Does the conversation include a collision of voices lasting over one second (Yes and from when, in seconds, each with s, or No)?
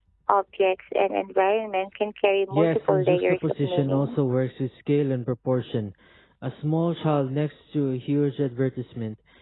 Yes, from 2.5 s